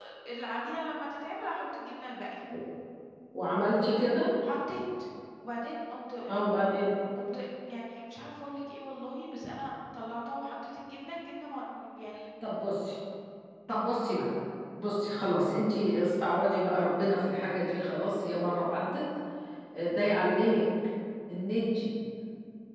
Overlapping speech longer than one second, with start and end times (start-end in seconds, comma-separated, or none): none